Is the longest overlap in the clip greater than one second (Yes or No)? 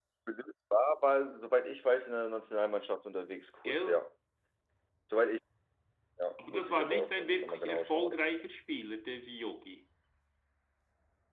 Yes